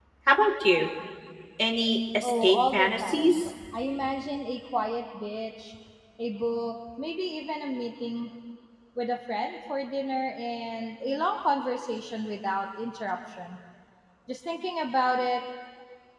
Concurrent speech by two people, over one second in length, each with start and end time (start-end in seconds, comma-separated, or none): 2.2-3.5